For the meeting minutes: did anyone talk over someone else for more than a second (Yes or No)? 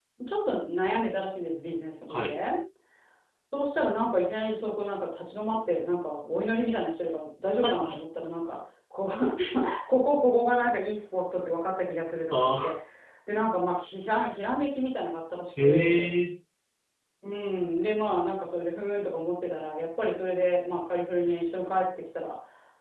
No